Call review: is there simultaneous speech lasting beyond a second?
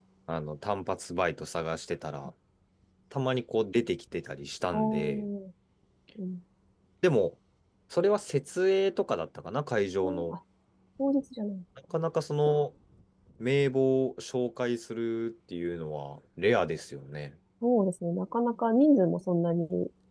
No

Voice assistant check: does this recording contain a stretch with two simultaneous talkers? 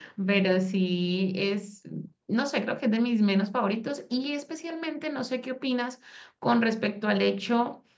No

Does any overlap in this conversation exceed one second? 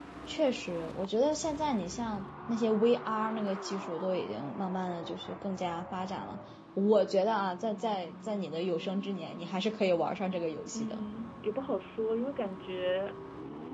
No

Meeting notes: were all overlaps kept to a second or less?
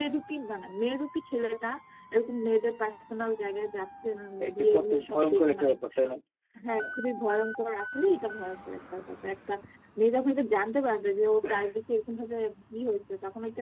No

